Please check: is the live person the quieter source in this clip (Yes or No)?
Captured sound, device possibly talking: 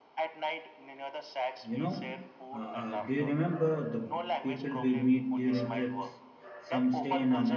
No